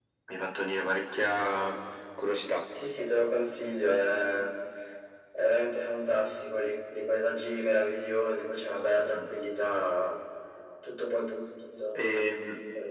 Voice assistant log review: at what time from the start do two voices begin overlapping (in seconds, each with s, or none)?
none